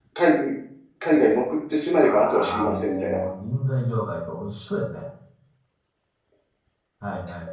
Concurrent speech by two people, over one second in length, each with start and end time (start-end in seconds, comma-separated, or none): 2.0-3.2